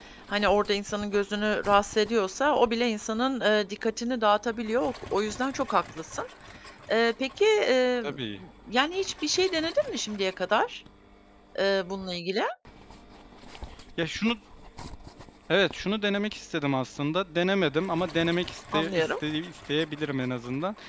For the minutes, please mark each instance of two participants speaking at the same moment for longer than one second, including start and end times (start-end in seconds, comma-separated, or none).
none